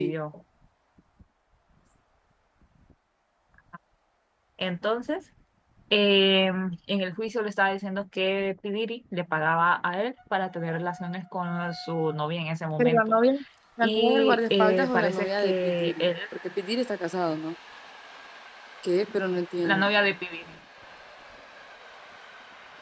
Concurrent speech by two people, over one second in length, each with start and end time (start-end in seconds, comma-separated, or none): 13.8-16.0